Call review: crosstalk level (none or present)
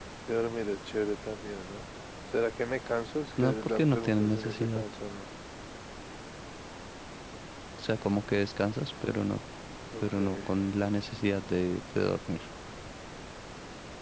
present